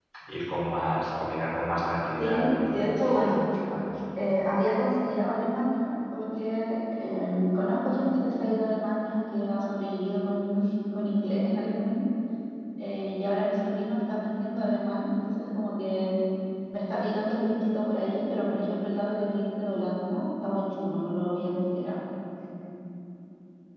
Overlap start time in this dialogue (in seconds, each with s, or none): 2.2 s